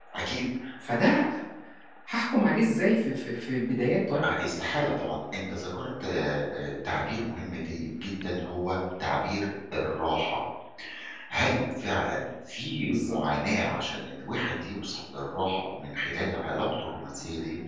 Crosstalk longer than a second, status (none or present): none